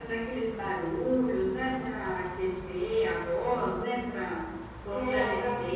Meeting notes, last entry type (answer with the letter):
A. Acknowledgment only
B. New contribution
B